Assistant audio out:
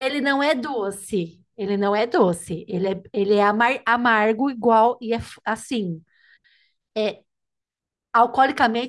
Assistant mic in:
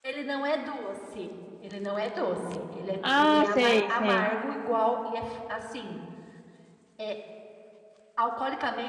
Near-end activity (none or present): present